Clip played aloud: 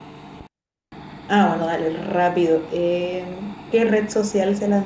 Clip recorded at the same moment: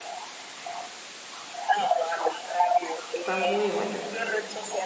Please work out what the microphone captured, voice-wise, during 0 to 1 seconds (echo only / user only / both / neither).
neither